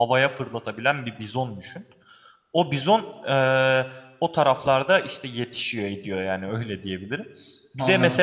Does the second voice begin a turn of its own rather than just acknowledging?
No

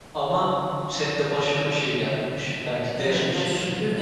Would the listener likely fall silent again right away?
No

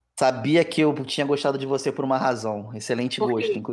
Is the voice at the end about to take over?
No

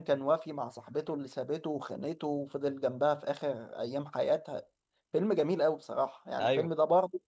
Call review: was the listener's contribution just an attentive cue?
Yes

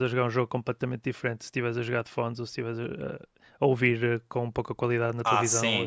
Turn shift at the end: Yes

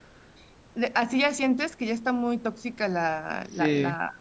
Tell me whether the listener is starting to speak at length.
Yes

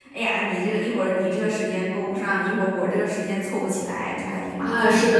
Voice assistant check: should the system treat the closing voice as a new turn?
Yes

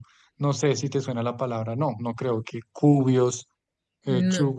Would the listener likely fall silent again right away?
Yes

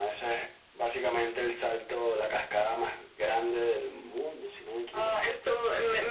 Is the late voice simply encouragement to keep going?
No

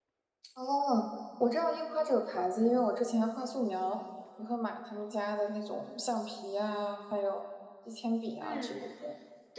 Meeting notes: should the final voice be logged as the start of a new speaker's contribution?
Yes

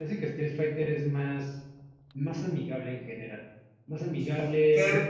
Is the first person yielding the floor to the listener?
Yes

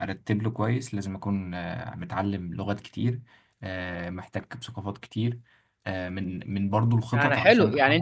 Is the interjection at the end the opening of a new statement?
Yes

